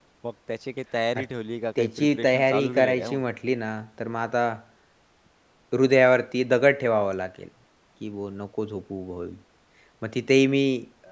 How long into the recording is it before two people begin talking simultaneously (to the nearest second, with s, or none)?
2 s